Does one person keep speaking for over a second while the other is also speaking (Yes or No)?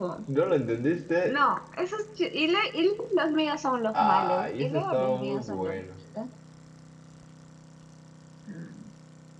Yes